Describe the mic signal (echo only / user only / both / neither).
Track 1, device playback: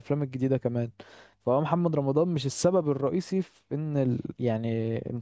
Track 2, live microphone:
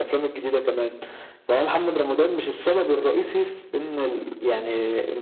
echo only